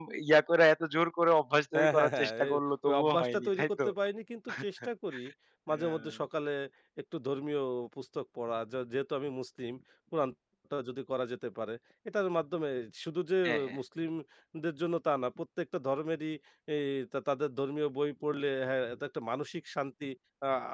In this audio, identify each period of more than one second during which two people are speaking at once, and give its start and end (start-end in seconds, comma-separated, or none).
1.8-3.9